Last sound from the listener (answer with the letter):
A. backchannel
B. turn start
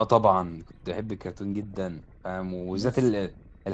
A